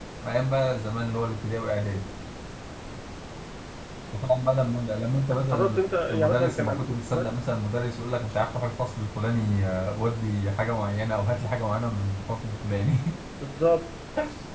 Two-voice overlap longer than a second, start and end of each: 5.5-7.2

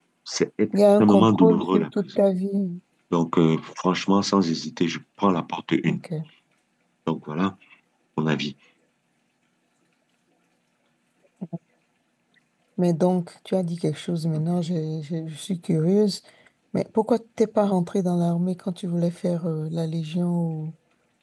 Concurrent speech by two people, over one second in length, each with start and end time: 1.0-2.2

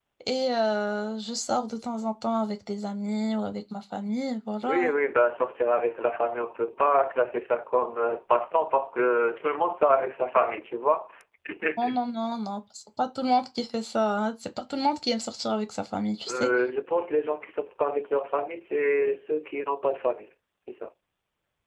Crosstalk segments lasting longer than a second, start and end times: none

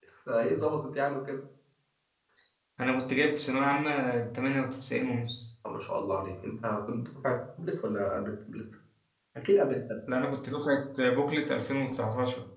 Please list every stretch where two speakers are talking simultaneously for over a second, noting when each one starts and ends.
none

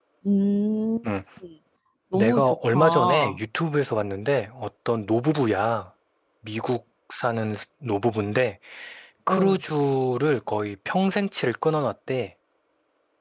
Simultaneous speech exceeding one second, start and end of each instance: 2.1-3.4

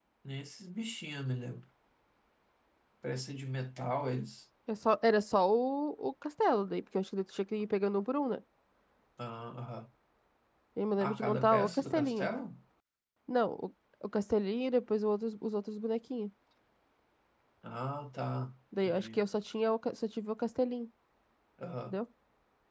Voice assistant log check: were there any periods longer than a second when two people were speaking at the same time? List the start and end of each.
11.0-12.3

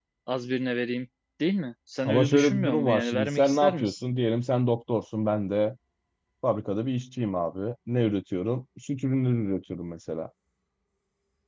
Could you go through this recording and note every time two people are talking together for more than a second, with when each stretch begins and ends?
2.0-3.9

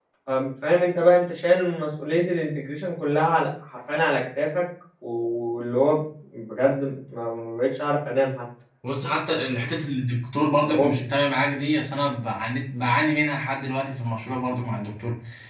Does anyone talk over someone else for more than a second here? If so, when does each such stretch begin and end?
none

